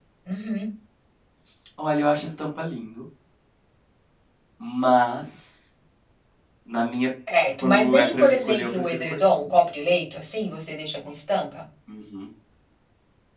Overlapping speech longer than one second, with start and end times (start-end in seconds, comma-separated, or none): 7.6-9.5